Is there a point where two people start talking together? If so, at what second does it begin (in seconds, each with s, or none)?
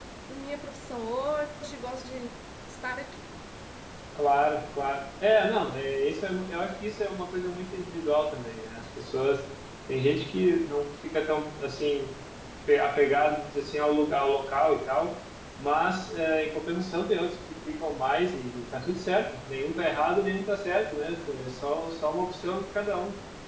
none